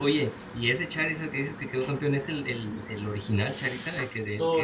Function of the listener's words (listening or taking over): taking over